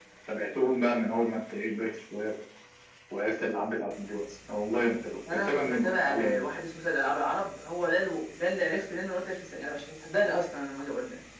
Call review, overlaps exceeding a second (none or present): present